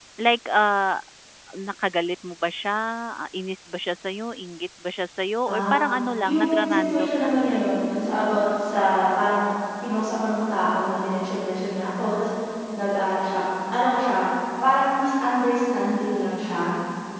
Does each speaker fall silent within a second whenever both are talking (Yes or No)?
No